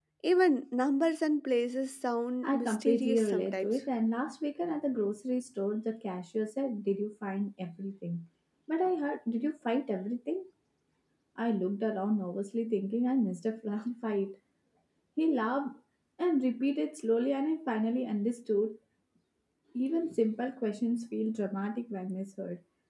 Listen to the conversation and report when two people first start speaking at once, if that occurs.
2.4 s

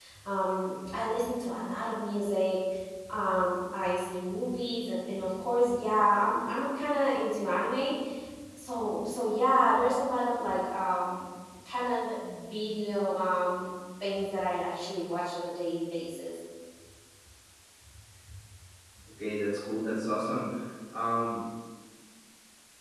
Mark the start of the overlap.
none

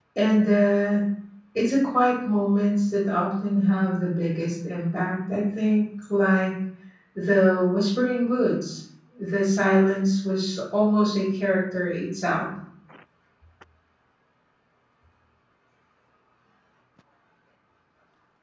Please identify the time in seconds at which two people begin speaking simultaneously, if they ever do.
none

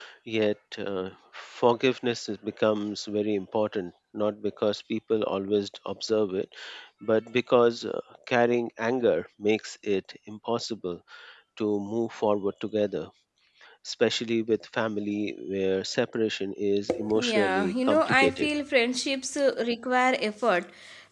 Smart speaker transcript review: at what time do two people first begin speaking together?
16.9 s

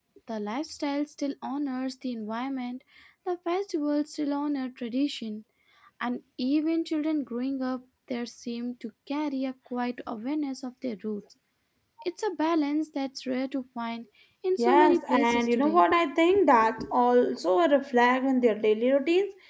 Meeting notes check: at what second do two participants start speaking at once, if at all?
14.6 s

